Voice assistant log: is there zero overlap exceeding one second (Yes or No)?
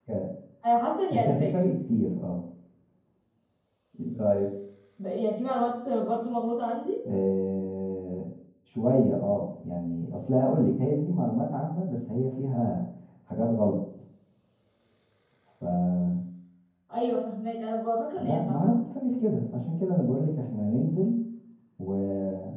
Yes